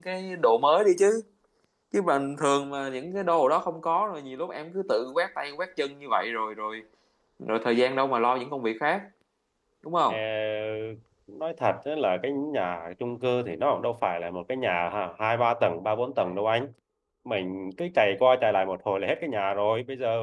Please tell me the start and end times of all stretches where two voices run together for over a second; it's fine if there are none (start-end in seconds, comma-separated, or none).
none